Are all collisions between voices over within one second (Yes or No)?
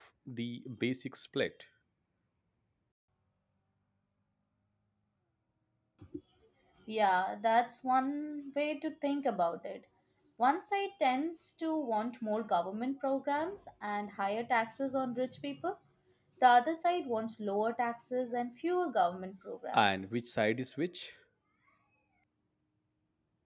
Yes